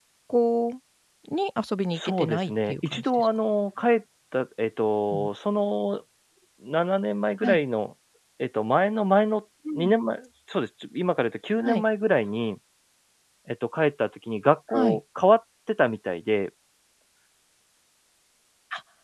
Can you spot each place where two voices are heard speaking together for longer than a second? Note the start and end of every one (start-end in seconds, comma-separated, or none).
1.9-3.3